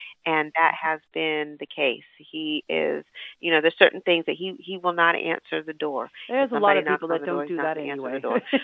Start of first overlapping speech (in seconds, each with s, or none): 6.3 s